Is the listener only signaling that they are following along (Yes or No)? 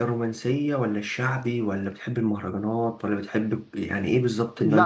No